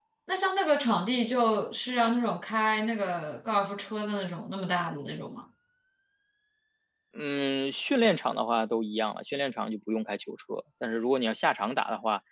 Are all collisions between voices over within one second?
Yes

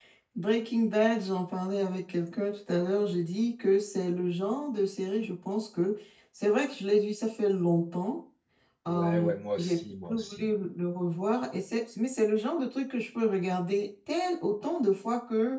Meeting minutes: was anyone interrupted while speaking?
Yes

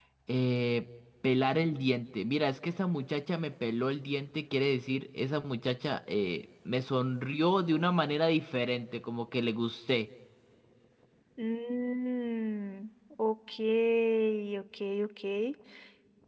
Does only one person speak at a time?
Yes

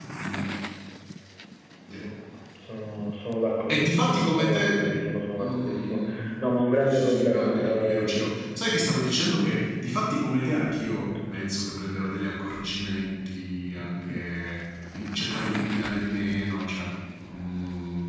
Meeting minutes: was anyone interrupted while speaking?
Yes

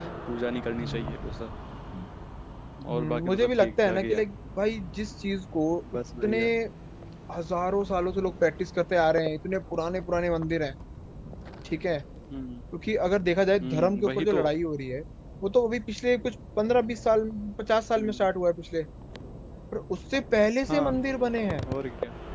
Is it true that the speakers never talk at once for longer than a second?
No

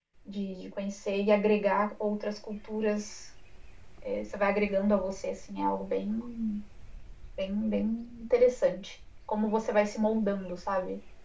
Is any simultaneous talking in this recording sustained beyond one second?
No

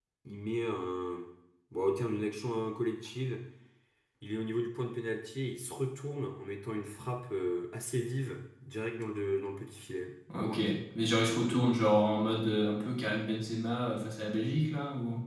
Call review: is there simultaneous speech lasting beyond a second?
No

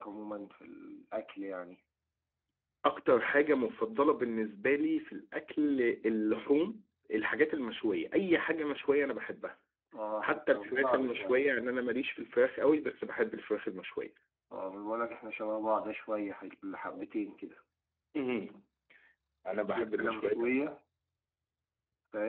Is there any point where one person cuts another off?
Yes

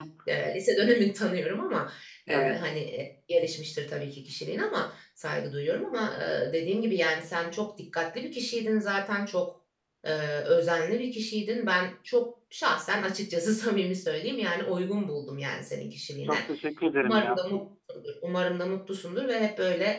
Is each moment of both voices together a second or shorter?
Yes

